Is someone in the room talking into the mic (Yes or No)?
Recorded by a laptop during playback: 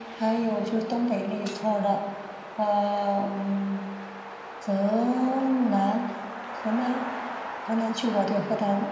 No